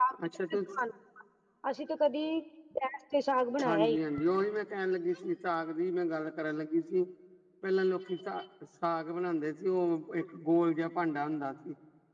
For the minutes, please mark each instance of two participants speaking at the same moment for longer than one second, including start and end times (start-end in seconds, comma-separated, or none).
none